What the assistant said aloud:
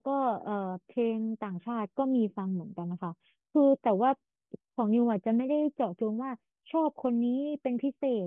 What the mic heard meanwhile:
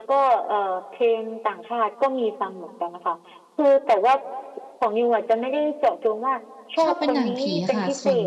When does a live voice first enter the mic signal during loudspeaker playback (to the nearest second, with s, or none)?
7 s